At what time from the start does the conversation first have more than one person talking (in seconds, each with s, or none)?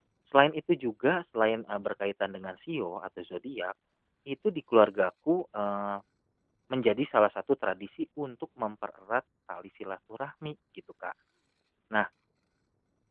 none